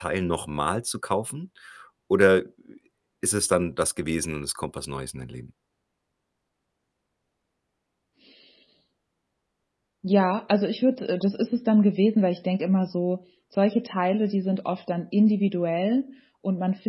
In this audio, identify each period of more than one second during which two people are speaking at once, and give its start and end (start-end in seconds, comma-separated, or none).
none